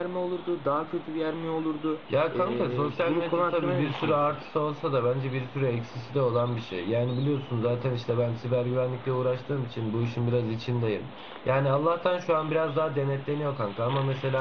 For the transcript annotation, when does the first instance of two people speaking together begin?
2.1 s

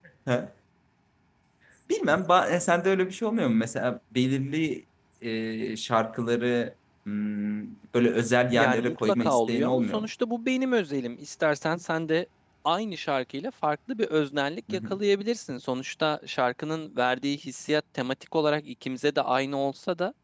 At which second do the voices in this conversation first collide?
8.5 s

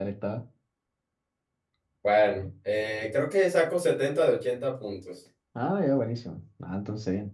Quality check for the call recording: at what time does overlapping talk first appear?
none

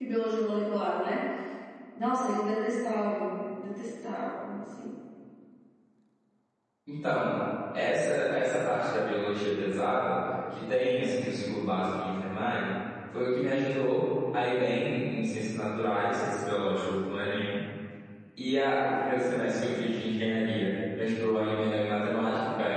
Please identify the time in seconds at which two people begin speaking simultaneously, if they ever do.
none

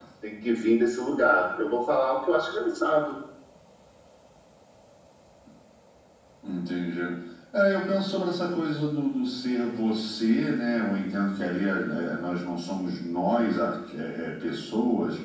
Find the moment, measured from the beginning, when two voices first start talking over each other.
none

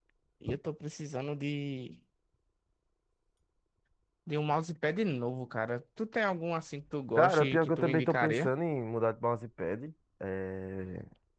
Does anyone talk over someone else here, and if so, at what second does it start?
7.2 s

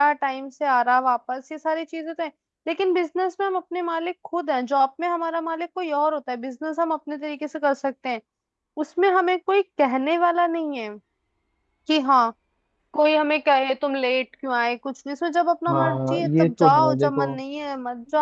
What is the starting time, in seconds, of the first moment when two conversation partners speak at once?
15.7 s

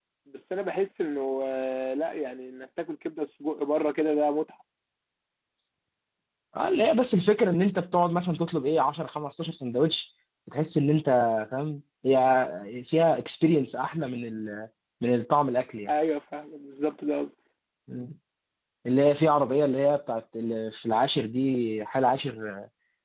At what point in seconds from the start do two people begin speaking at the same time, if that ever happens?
none

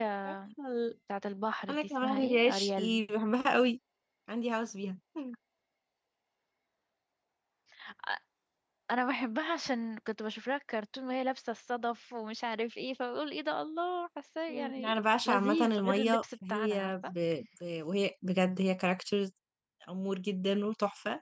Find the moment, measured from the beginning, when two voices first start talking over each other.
1.7 s

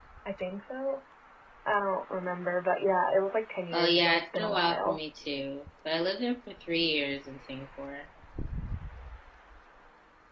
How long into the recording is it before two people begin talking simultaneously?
3.7 s

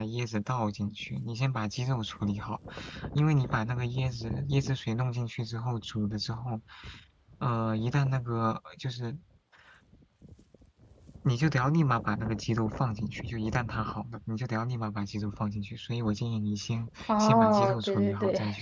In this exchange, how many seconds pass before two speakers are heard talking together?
17.1 s

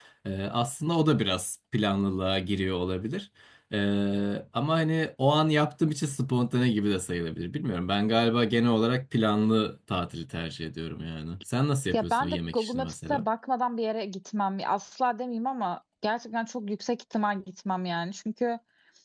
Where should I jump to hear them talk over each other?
11.9 s

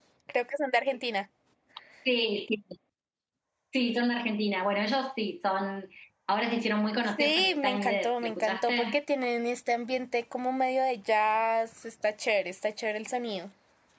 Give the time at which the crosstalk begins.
7.2 s

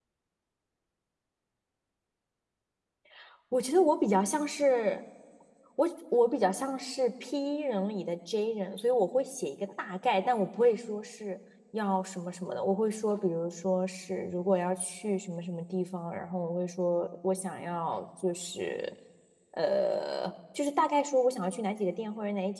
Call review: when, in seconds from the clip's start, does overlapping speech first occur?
none

